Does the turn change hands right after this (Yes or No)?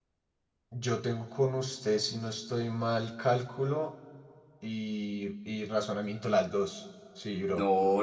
Yes